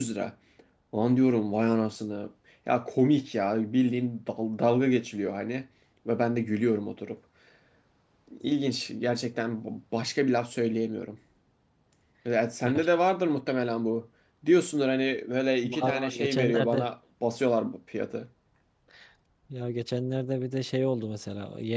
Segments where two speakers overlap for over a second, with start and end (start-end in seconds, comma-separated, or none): 15.6-16.9